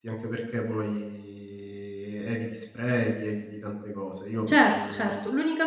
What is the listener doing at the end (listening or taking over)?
taking over